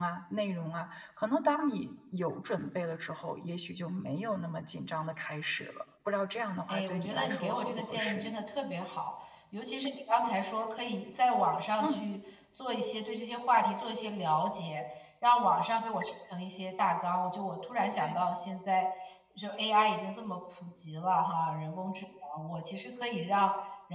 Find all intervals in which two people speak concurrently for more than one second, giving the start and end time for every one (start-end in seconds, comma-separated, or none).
6.7-8.3